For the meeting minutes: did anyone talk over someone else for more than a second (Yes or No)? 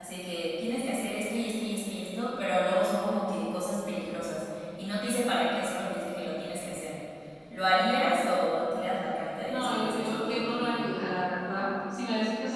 Yes